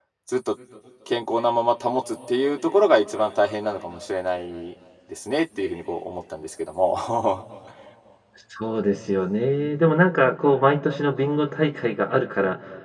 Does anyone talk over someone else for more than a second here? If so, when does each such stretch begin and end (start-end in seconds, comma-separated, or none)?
none